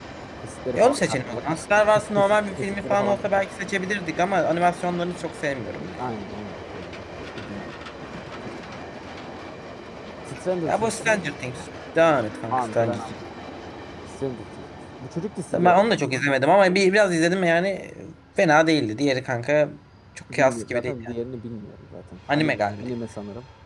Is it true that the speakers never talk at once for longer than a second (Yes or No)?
No